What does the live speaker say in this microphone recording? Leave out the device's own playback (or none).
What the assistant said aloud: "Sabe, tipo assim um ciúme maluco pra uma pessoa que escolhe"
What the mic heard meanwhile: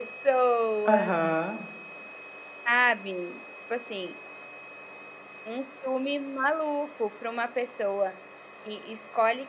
Aham.